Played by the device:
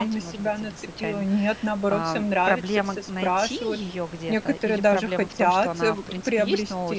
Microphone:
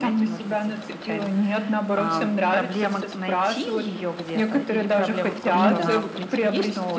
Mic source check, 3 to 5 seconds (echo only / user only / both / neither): echo only